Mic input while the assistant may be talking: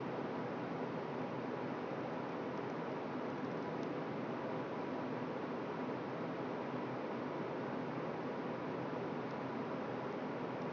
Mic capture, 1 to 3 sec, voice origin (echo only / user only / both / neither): neither